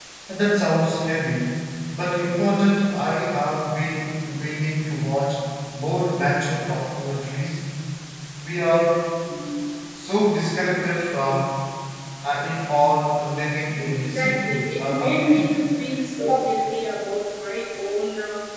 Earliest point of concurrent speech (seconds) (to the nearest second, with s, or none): 14 s